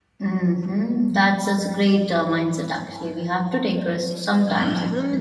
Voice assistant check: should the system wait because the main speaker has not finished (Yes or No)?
No